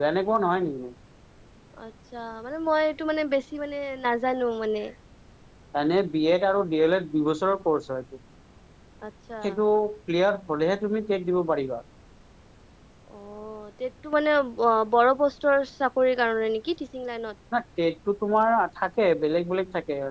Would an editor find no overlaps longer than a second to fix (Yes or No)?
Yes